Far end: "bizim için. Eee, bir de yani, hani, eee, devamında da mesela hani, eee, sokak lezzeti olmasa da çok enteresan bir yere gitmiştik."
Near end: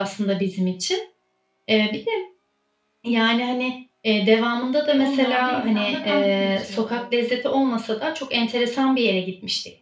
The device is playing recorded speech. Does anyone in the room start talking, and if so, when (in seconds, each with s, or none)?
4.9 s